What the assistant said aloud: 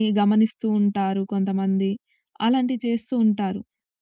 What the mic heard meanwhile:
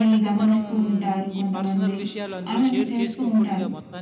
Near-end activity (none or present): present